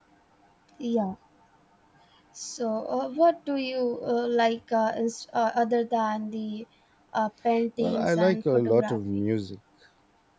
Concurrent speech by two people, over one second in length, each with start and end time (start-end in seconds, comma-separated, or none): 7.8-9.0